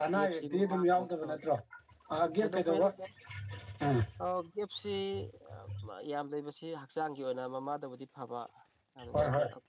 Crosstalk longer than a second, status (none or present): present